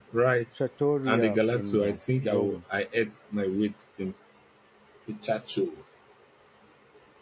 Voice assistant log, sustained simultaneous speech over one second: present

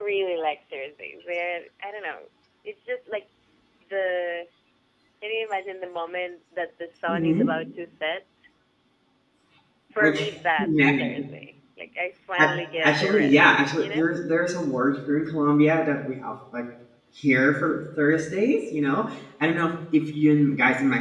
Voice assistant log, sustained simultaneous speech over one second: present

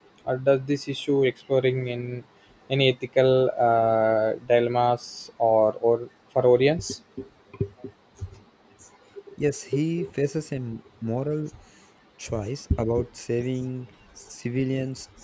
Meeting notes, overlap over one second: none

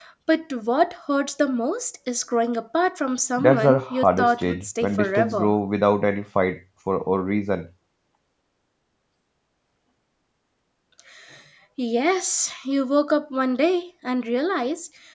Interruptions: present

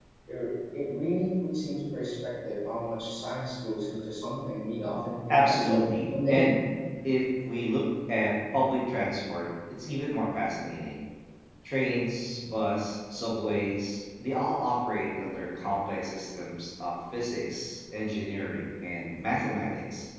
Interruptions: present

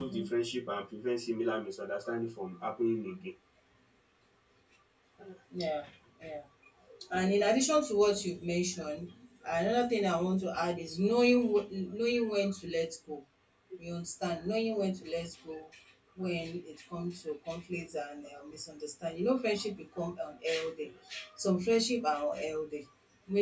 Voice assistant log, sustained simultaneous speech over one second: none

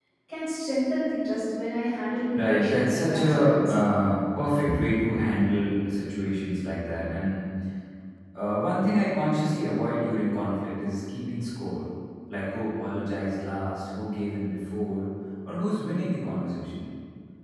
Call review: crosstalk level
present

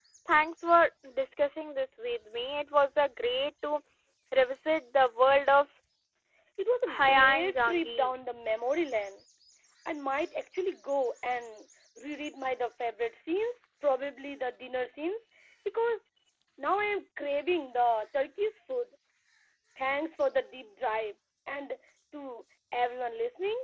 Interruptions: present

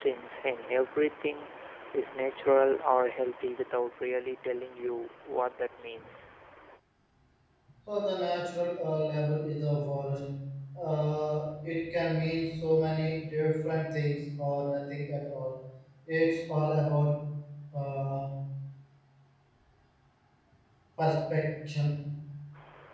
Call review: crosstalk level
none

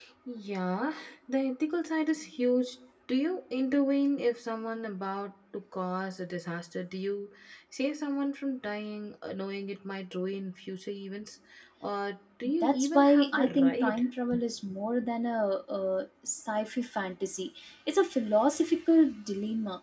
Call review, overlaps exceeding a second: present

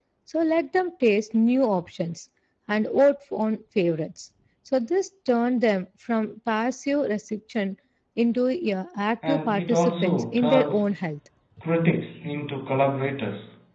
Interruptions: present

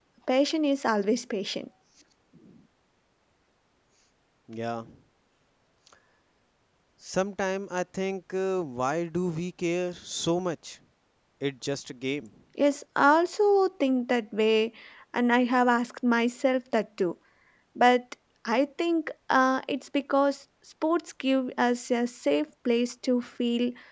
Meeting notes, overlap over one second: none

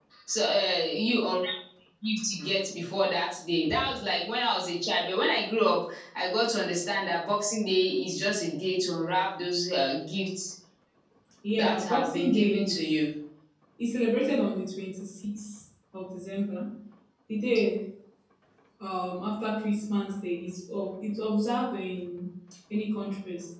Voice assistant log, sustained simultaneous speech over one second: present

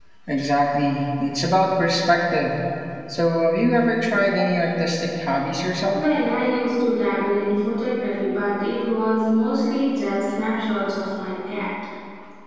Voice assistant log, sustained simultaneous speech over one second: none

